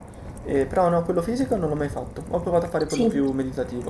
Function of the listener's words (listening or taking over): listening